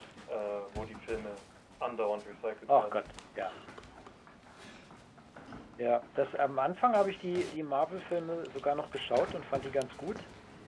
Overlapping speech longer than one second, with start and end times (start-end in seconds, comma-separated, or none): none